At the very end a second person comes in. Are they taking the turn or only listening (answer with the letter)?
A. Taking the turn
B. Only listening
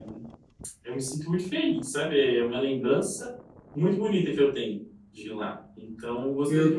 B